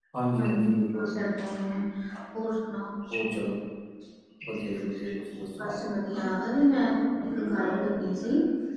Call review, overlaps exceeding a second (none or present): none